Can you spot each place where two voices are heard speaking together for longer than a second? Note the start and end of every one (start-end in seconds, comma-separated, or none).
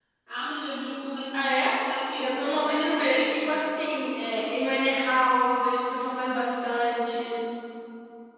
2.2-3.6